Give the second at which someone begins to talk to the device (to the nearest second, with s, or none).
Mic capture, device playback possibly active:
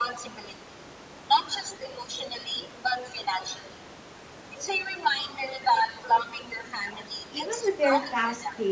7 s